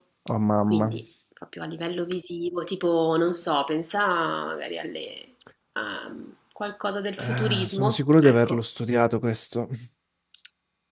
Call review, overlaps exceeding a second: present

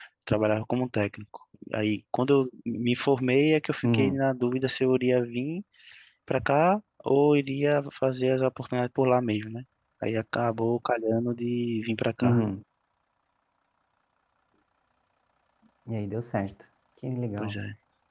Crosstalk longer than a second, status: none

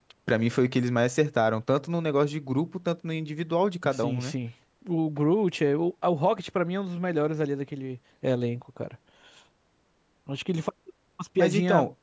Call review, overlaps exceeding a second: none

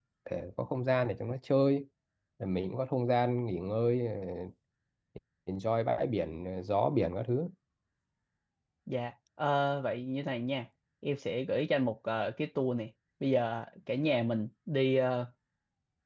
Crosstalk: none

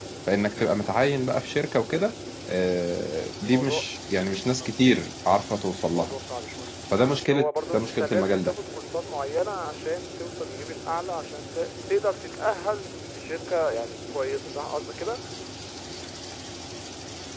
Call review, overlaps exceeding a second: present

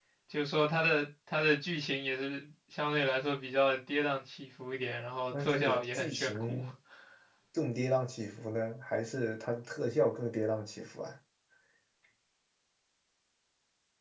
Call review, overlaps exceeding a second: present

